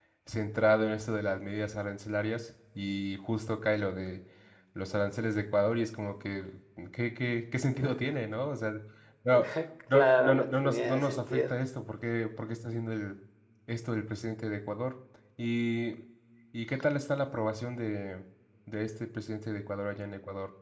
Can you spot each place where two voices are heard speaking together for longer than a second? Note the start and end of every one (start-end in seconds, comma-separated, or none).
9.9-11.5